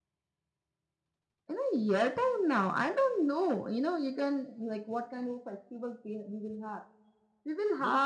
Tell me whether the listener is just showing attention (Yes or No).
Yes